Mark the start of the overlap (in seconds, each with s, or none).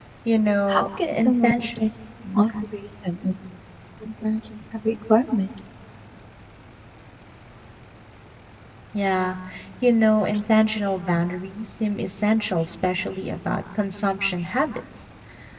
0.7 s